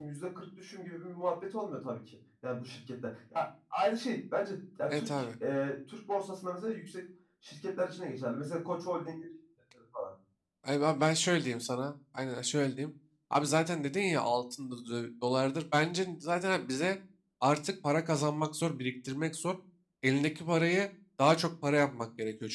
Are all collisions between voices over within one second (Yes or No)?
Yes